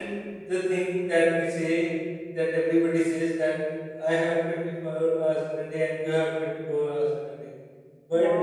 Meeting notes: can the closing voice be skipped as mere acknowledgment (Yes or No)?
Yes